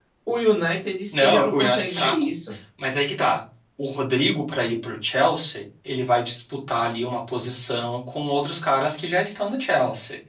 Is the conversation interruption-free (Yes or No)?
No